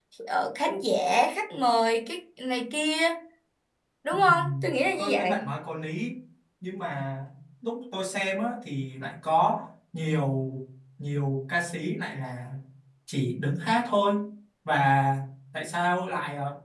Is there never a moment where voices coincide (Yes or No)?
No